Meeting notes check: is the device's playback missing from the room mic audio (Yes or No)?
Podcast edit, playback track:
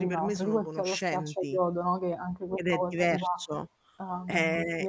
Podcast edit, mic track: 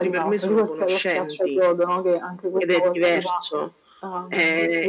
No